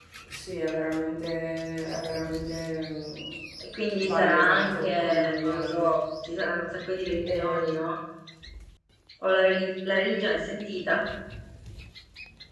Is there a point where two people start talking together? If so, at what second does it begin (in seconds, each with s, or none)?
4.0 s